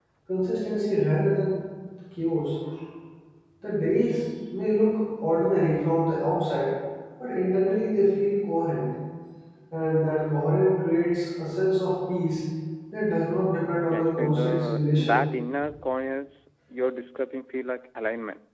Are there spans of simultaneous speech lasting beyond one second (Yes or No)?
Yes